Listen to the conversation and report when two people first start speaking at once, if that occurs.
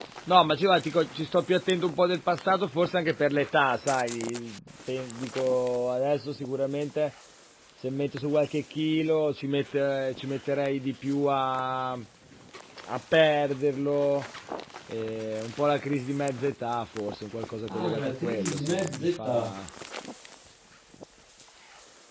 17.7 s

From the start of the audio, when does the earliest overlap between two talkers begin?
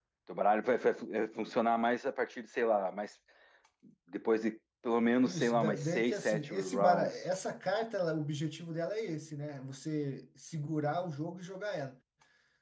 5.2 s

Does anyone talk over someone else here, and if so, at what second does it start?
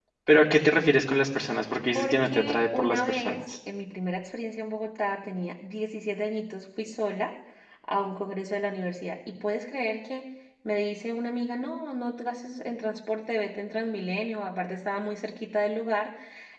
2.0 s

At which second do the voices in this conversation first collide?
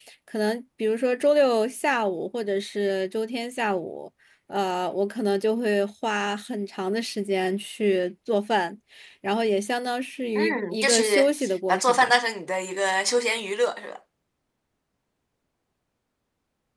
10.3 s

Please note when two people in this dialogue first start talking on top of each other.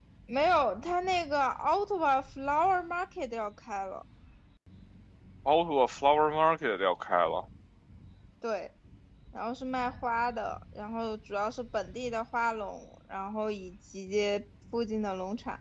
none

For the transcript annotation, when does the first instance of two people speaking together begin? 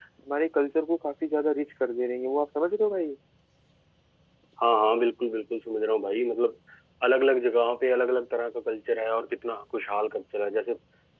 none

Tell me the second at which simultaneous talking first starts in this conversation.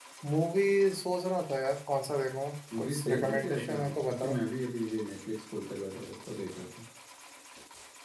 2.7 s

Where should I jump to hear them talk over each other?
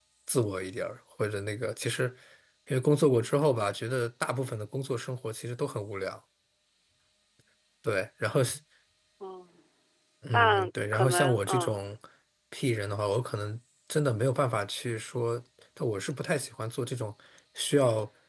10.3 s

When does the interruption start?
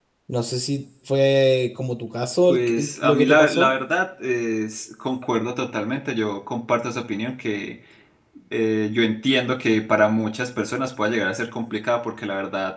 2.5 s

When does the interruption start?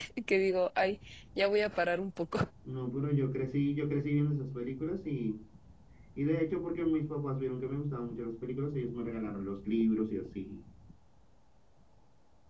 none

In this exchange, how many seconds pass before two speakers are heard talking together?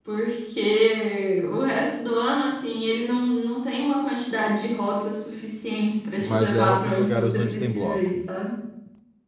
6.2 s

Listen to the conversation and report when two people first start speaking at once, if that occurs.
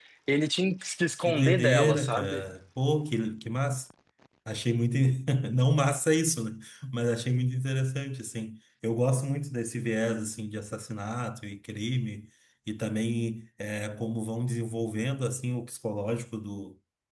1.2 s

